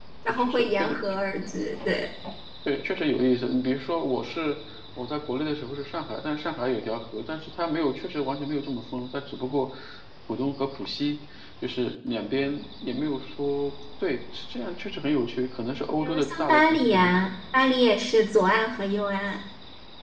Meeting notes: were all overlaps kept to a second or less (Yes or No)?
No